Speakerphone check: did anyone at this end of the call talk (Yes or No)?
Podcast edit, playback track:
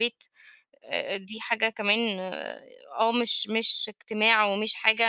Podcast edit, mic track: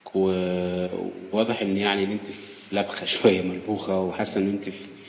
Yes